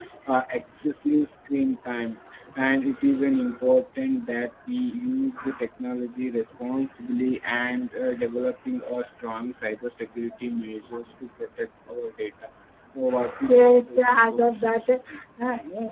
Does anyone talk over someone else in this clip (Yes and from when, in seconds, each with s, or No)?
Yes, from 13.5 s